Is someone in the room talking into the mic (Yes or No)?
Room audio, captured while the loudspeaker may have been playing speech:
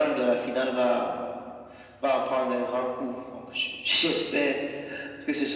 No